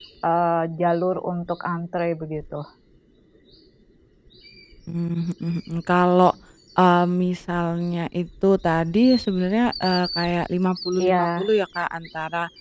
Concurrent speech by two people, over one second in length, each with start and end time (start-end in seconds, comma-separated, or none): none